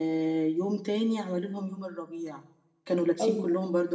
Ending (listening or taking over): listening